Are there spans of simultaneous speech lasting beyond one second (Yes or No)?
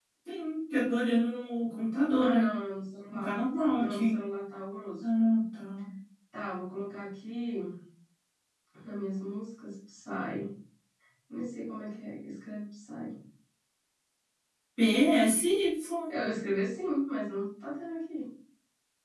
No